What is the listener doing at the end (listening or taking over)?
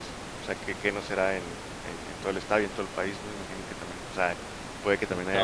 listening